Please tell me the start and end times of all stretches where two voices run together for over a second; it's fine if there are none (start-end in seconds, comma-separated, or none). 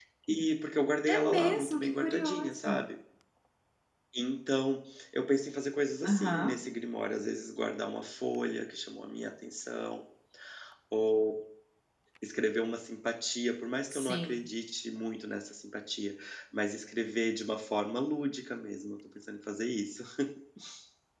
1.1-2.8